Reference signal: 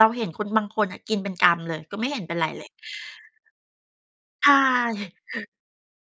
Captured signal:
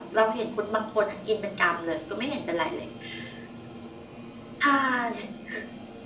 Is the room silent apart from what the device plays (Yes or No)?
Yes